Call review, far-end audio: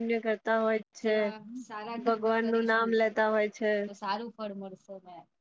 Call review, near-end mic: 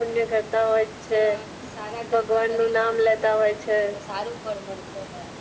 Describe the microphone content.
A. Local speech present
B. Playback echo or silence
B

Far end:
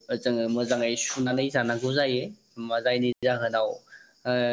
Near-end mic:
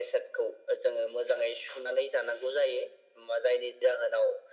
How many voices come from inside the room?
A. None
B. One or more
A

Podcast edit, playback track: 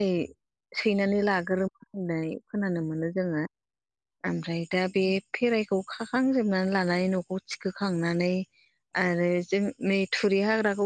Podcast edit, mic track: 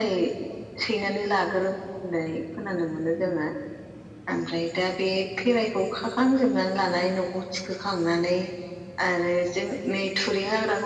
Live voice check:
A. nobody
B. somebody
A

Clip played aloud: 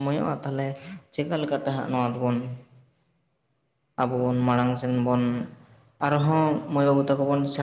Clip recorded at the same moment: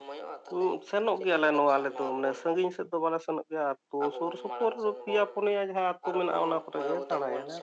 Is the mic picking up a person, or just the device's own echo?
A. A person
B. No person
A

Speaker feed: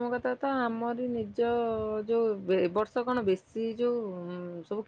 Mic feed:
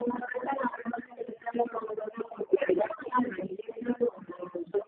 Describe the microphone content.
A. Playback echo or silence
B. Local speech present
A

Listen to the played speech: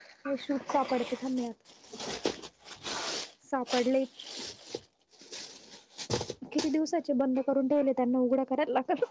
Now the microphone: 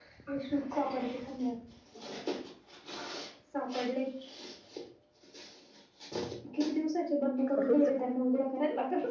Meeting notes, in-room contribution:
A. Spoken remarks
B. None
A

